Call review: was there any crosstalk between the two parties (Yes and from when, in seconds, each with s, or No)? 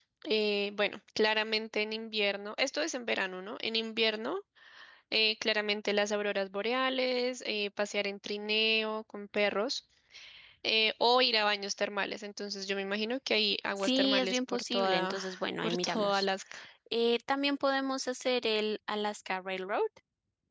Yes, from 13.8 s